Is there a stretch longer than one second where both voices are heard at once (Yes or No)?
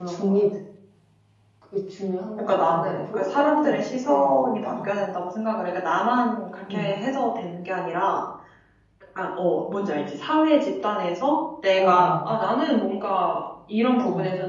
Yes